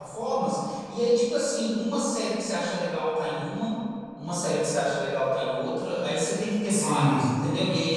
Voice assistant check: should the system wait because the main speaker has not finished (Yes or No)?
Yes